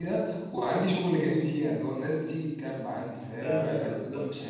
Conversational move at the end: listening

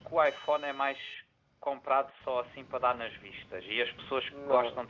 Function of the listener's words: listening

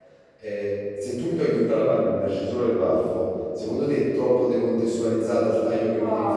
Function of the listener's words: taking over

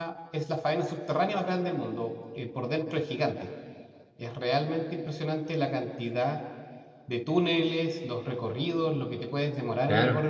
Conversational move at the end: taking over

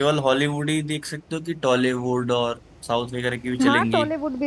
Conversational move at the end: taking over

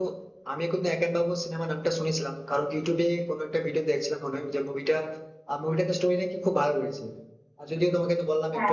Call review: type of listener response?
listening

